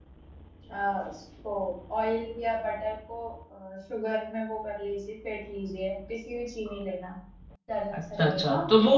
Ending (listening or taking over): taking over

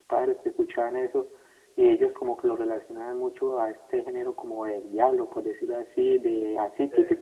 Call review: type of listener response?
listening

